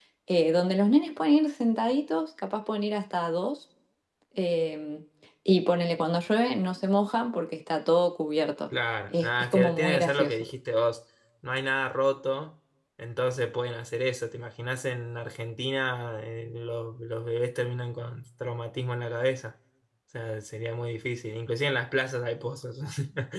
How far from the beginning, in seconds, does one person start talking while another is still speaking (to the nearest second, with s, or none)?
9 s